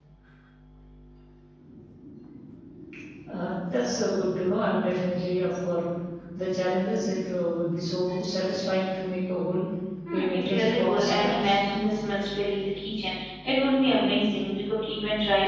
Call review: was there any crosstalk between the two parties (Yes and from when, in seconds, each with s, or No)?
Yes, from 10.1 s